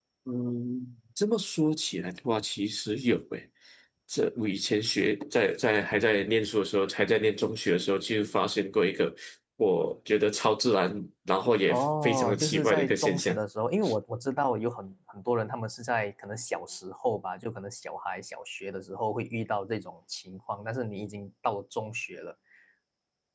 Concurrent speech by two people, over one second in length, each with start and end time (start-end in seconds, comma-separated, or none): 11.7-13.4